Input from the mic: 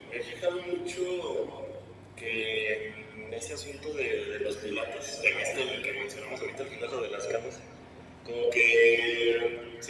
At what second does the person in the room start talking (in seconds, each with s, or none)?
none